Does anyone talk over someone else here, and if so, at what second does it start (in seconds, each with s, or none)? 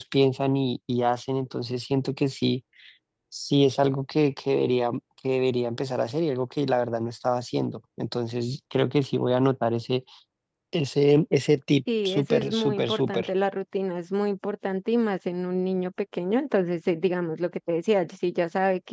11.9 s